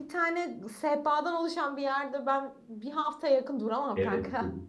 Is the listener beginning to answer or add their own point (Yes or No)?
Yes